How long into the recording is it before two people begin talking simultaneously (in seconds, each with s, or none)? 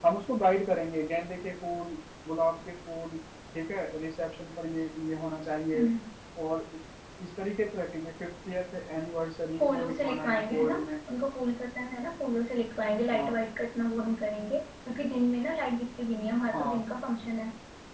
9.6 s